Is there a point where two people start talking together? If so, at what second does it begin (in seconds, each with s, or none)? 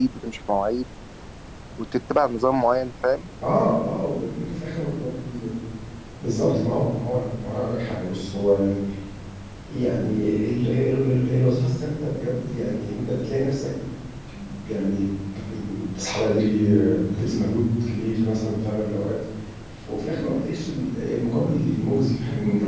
none